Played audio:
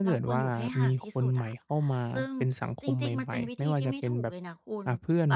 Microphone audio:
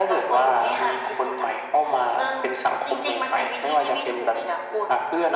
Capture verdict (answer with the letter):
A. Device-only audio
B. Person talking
A